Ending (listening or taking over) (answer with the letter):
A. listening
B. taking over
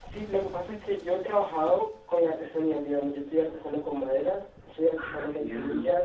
A